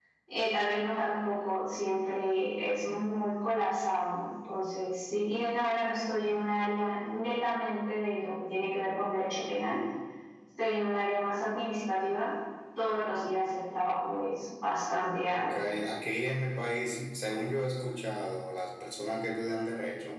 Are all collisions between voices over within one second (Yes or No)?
Yes